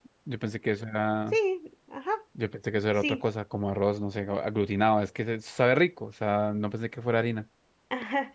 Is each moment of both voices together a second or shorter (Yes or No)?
Yes